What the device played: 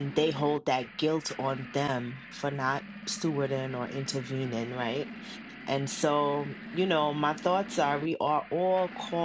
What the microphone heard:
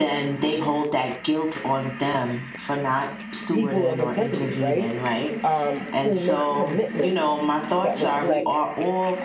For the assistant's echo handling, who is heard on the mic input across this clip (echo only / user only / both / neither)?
both